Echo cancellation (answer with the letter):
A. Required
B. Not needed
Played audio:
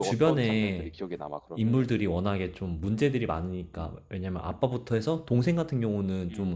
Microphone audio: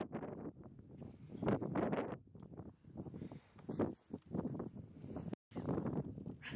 B